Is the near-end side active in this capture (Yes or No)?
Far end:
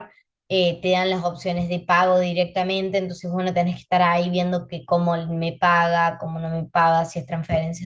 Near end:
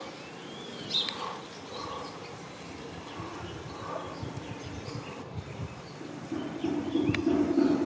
No